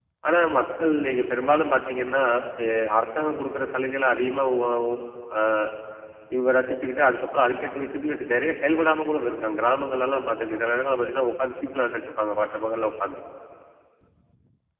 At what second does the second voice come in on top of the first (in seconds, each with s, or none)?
none